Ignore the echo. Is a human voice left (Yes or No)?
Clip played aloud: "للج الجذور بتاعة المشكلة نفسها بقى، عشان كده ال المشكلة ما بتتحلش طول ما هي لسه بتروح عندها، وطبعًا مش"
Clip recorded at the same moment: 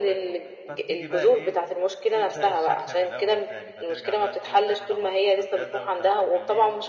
Yes